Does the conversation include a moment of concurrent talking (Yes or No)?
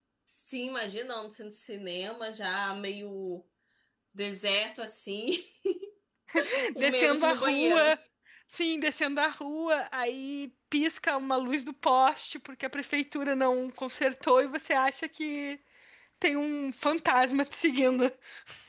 Yes